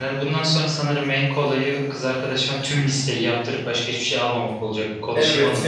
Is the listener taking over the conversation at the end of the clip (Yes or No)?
Yes